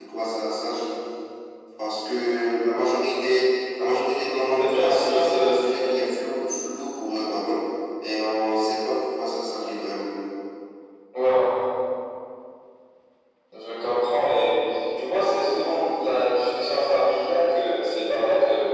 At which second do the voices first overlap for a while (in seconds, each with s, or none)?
4.6 s